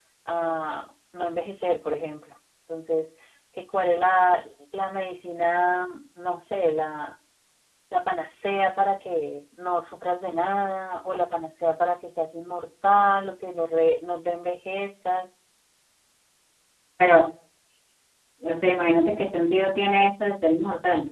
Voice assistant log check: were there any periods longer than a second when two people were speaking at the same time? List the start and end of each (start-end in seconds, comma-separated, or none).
none